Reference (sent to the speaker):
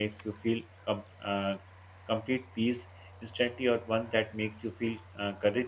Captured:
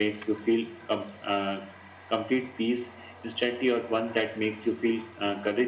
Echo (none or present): present